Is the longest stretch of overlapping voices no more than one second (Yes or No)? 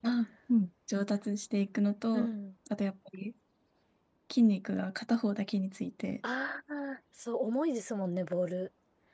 Yes